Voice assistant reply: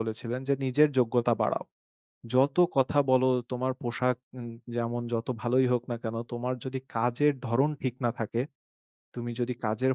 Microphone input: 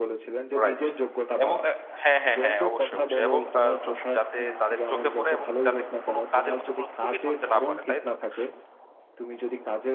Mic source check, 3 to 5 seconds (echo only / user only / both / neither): both